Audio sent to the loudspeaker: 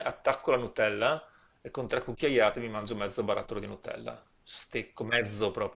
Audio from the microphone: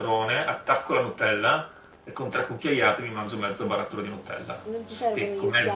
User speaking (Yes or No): Yes